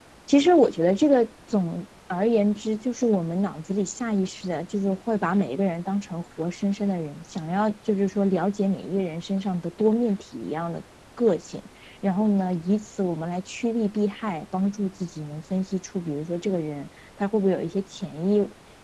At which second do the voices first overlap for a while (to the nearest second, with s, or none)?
none